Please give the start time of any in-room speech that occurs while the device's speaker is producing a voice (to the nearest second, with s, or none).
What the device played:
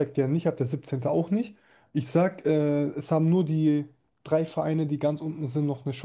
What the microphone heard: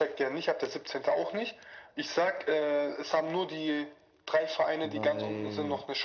5 s